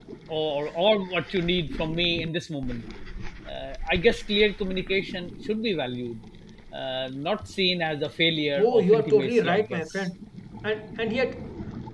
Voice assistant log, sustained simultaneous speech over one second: present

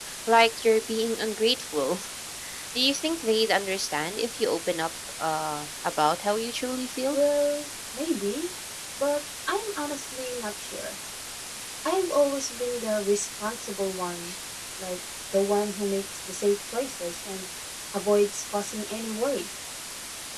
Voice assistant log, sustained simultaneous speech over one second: none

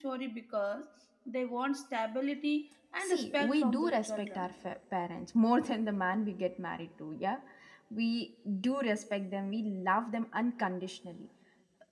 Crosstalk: present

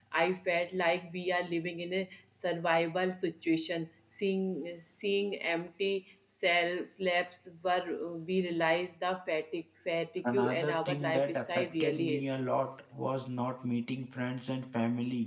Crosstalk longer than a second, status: present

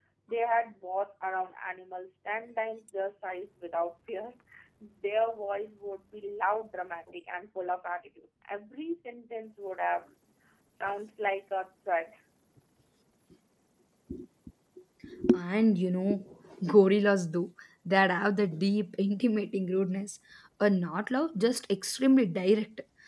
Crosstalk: none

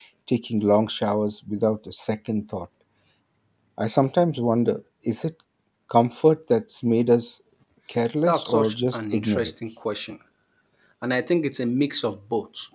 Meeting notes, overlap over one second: present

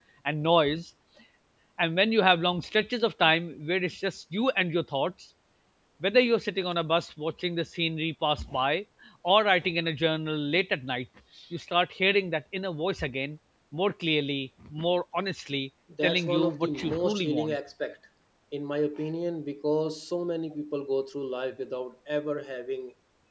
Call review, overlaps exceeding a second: present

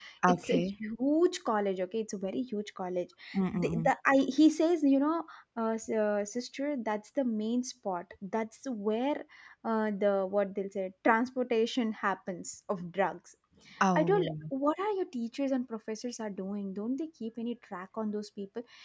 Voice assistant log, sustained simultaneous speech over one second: none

